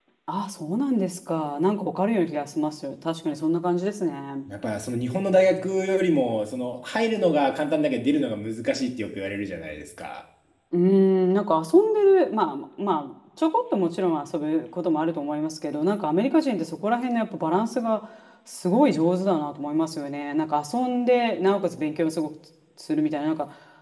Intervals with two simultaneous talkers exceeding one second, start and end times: none

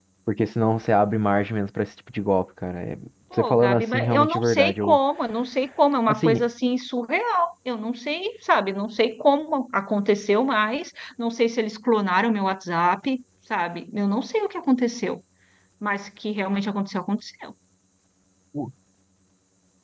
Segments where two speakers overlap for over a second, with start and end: 3.3-5.0

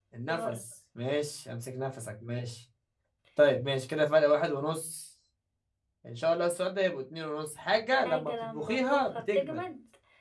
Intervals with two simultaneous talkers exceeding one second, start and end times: 7.9-9.6

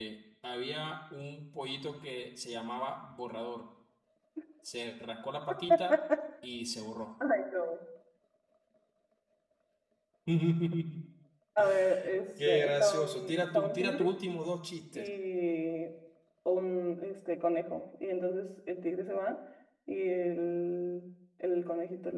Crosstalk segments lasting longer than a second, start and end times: 12.4-14.1

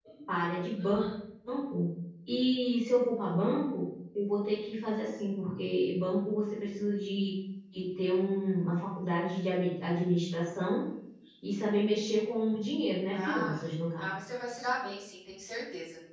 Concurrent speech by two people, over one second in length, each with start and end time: none

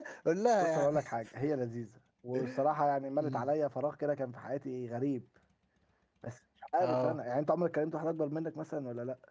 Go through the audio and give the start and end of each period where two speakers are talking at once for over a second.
none

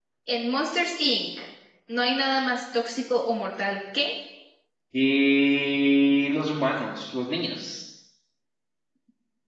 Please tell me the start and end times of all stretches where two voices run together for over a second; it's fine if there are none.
none

